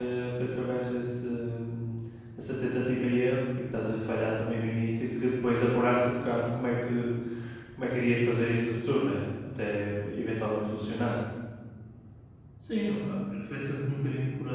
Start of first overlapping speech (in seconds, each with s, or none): none